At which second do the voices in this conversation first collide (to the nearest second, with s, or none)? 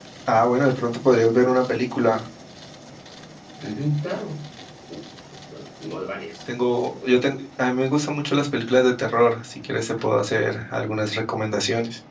none